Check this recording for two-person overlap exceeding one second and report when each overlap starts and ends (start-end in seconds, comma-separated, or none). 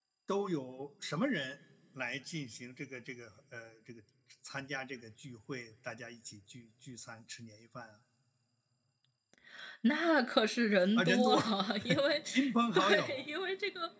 none